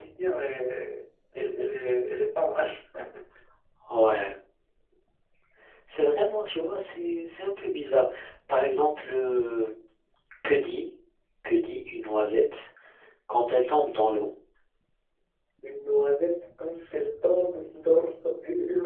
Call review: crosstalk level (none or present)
none